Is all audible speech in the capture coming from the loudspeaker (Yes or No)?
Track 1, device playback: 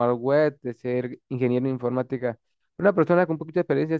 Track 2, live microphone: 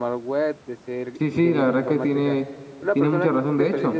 No